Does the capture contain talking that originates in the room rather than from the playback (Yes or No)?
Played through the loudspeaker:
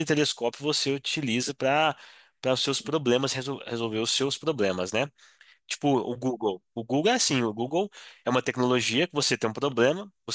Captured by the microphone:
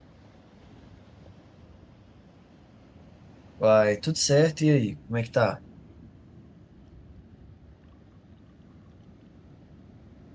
Yes